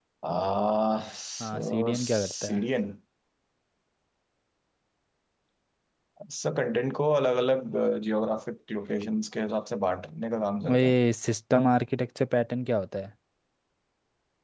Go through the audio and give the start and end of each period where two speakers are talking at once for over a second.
1.4-2.6

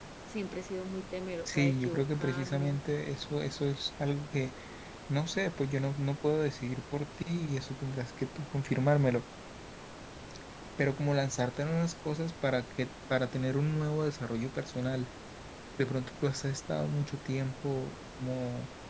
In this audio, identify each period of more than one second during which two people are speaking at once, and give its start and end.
1.4-2.8

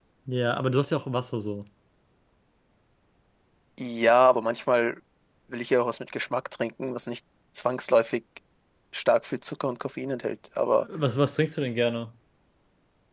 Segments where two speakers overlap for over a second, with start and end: none

